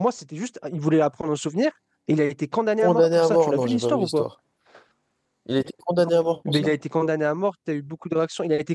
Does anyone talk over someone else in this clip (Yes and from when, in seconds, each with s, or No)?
Yes, from 2.8 s